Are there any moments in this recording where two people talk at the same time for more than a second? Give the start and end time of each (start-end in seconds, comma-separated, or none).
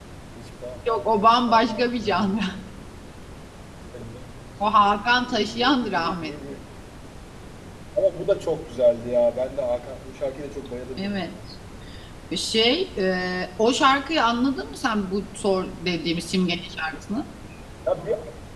0.9-2.5, 5.2-6.5